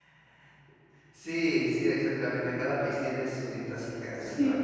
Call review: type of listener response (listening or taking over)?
taking over